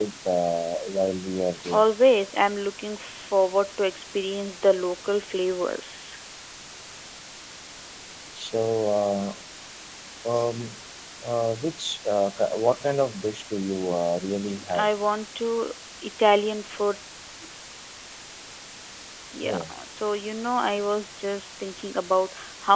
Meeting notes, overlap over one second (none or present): none